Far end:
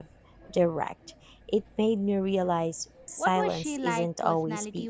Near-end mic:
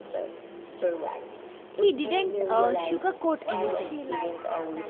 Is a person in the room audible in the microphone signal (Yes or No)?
Yes